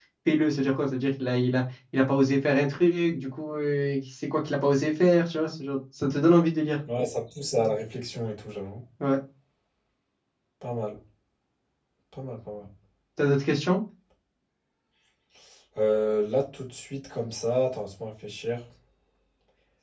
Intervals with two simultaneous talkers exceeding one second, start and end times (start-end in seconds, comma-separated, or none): none